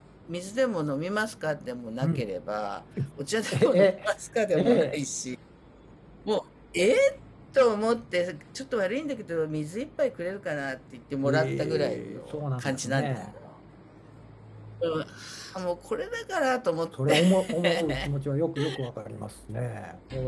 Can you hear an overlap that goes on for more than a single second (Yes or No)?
Yes